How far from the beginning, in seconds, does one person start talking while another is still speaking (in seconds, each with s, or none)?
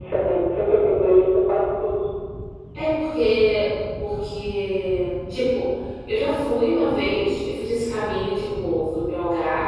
none